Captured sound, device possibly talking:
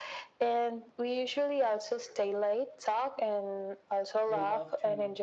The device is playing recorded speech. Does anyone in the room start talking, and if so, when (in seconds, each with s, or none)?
4.2 s